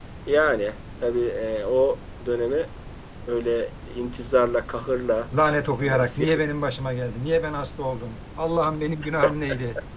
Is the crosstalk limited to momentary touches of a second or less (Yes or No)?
Yes